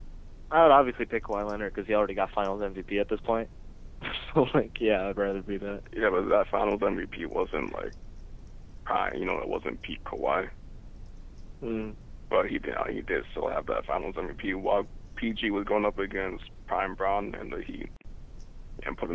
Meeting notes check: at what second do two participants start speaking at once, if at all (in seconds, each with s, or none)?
none